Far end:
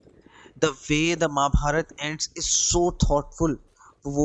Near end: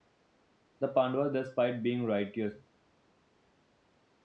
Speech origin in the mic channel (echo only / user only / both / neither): user only